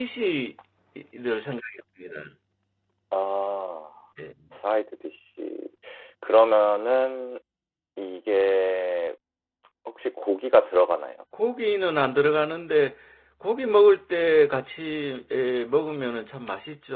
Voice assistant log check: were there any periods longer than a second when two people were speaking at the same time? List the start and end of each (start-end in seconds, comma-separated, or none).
none